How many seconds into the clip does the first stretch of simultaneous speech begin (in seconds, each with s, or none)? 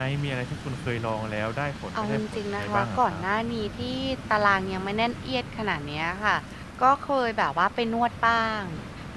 2.0 s